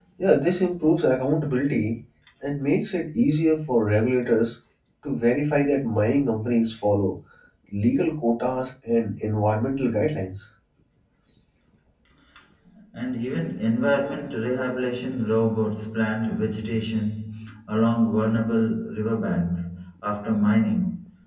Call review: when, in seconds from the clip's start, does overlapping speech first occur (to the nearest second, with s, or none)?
none